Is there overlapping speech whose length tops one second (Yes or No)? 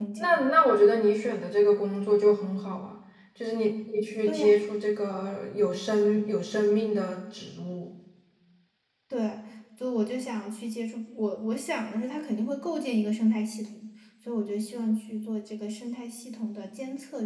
No